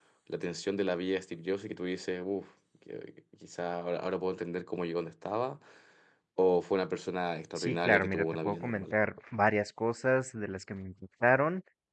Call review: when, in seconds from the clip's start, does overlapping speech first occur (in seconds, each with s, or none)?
7.5 s